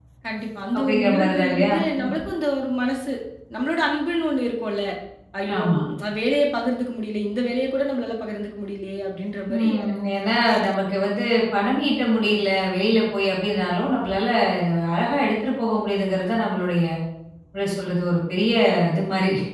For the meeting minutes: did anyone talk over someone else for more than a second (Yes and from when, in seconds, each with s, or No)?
Yes, from 0.8 s